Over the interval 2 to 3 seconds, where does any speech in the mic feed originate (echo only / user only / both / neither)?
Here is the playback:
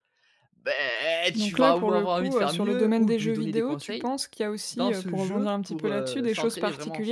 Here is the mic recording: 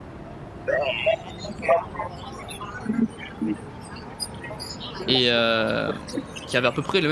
echo only